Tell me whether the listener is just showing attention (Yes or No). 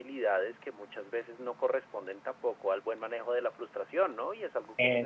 Yes